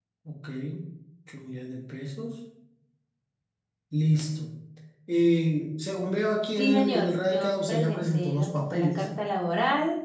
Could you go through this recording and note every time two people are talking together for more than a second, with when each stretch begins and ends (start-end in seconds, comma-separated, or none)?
6.6-9.1